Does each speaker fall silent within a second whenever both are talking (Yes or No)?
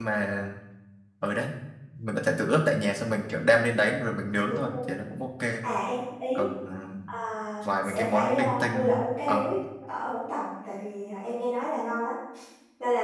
No